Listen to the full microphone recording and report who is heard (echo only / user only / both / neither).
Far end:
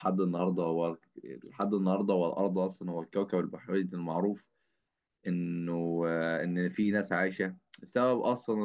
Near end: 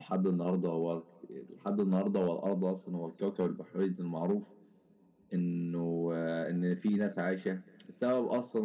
echo only